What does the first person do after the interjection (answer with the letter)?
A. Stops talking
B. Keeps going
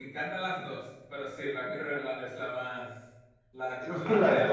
A